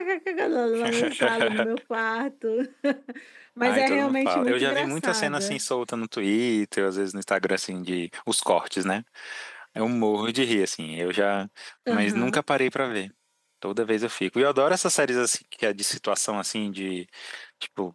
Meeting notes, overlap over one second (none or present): present